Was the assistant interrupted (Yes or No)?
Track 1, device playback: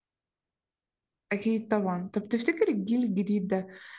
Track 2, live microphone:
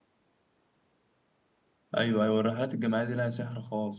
Yes